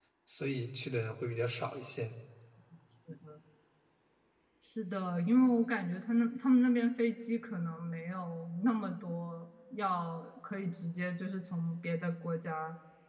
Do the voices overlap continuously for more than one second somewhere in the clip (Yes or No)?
No